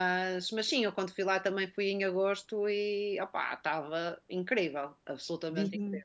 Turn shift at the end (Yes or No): Yes